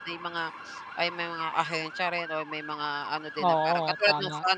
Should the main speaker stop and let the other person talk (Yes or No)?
No